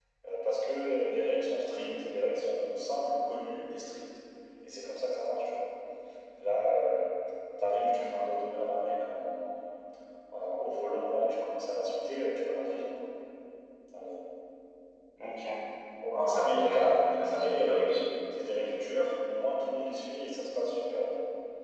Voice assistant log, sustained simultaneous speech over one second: present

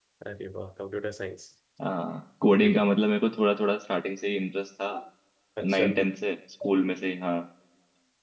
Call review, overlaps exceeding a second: none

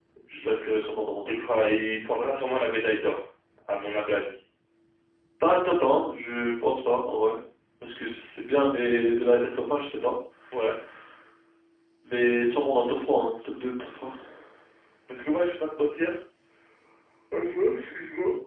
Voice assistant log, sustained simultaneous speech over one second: none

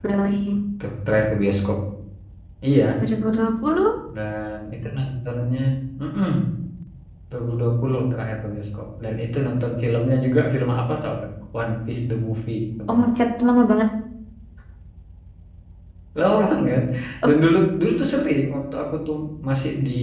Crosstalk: none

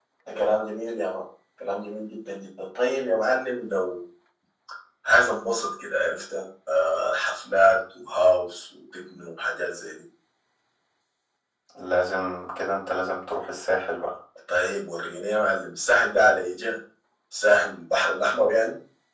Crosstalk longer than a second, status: none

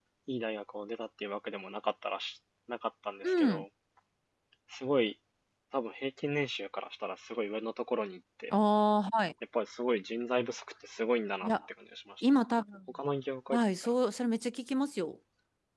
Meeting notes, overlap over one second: none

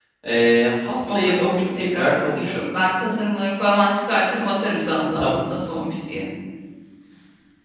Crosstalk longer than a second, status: present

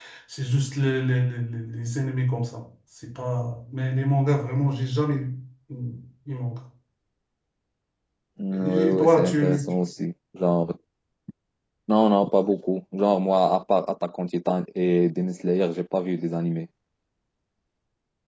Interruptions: present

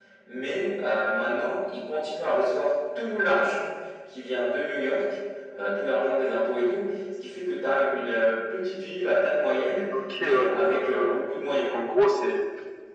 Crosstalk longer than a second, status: present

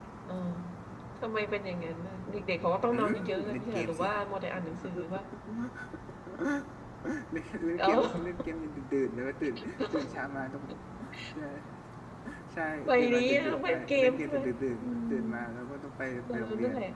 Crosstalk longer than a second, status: present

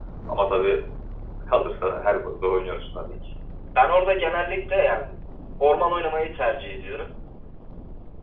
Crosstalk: none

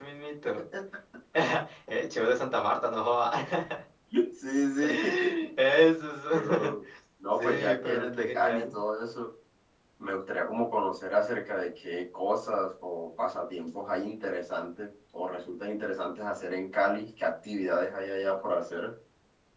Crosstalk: present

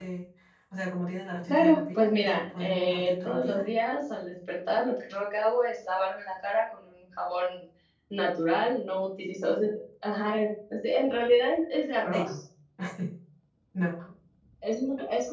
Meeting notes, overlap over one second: present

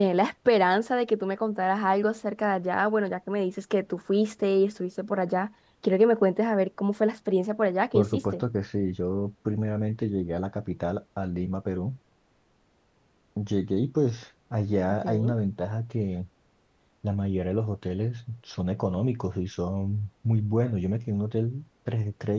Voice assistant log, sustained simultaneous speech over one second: none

